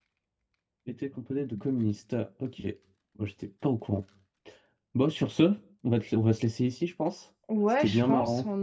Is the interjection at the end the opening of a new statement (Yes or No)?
Yes